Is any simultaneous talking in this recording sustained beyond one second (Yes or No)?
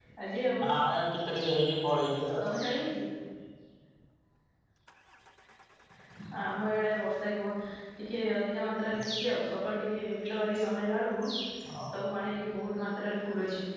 No